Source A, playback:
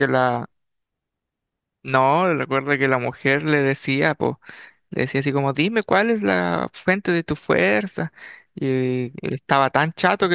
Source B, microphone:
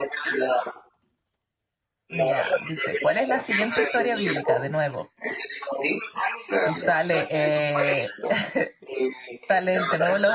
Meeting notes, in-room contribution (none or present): present